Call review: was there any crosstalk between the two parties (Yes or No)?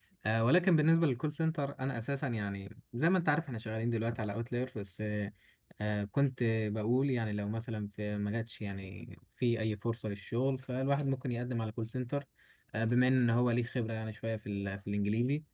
No